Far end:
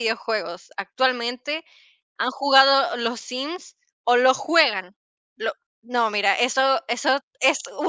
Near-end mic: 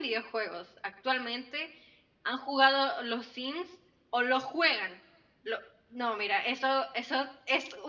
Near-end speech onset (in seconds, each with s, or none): none